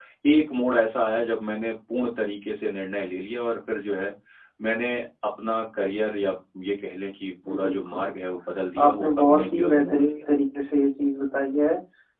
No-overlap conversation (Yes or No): No